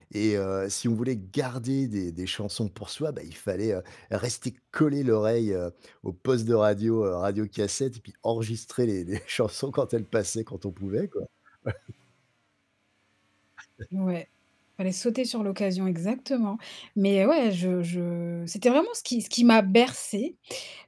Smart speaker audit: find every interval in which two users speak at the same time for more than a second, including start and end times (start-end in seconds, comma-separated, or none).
none